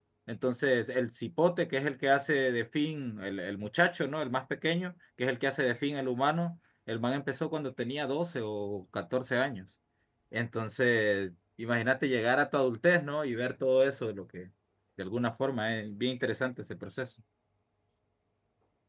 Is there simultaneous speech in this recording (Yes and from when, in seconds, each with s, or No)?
No